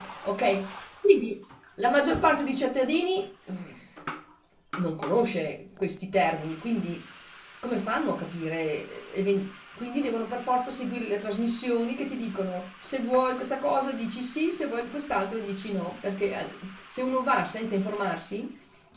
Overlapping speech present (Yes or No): No